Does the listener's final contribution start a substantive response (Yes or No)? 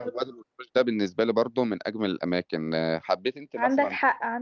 Yes